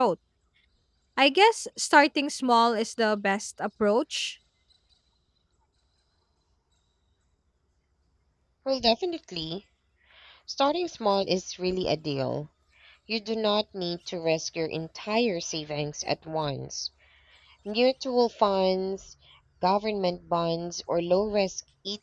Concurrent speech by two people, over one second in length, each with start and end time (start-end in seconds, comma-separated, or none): none